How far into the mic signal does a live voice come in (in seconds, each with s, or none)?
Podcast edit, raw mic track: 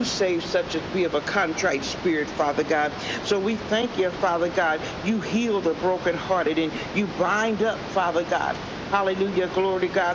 none